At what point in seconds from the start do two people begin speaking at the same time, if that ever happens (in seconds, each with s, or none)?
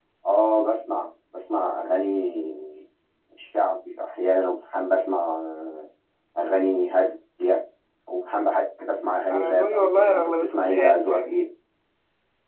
9.3 s